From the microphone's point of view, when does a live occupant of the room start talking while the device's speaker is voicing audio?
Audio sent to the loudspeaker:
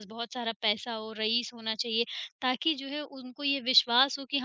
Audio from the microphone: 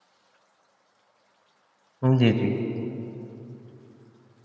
2.0 s

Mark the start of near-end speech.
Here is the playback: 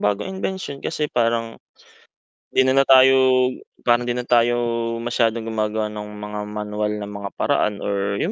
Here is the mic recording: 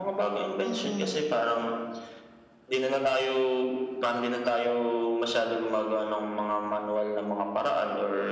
0.6 s

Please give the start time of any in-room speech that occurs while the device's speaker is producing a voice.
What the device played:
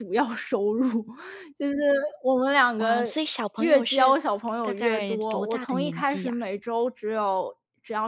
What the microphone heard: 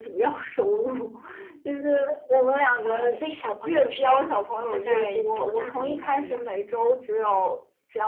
none

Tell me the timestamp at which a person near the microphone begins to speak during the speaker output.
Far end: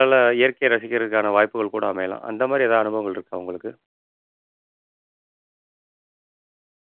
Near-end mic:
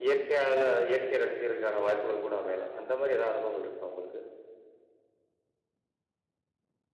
none

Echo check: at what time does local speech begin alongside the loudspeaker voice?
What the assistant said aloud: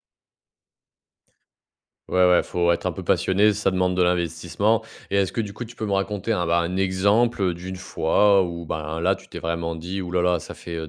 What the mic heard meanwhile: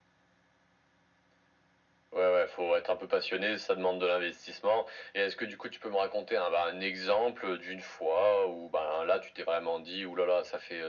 none

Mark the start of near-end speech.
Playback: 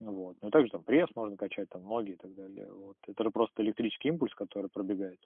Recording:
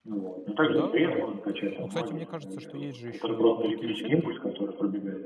0.6 s

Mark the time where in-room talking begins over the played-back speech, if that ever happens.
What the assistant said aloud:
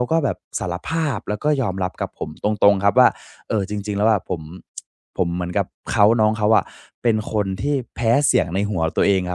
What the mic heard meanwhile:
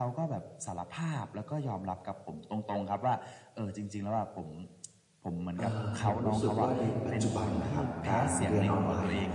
5.6 s

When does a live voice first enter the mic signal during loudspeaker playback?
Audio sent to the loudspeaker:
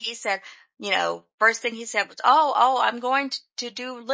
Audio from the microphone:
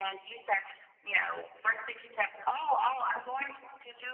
none

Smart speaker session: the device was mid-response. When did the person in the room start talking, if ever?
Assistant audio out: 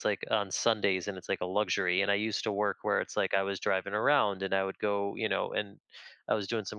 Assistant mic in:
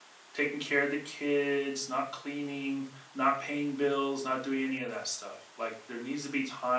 0.3 s

